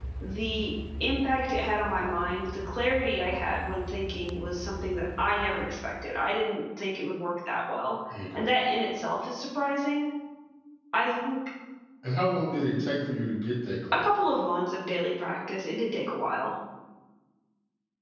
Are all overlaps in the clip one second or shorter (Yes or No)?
Yes